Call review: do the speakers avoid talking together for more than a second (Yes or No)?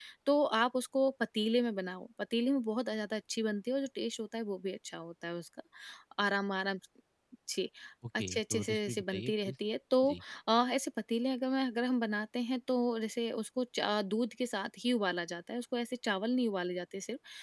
No